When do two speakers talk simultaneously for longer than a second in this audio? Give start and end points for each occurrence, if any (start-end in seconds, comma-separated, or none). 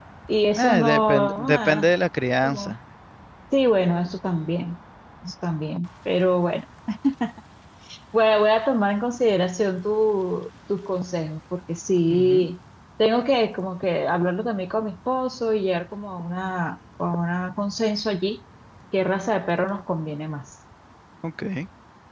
0.6-1.9